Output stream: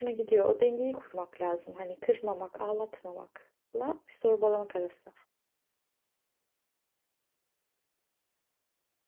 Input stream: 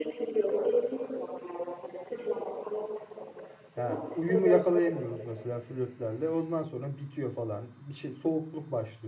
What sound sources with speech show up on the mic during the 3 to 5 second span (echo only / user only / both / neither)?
both